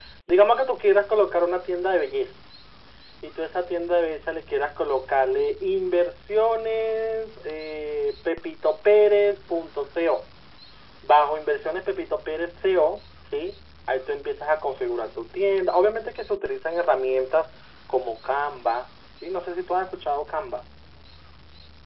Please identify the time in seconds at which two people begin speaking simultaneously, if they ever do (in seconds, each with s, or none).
none